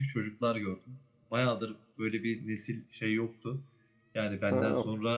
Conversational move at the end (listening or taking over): listening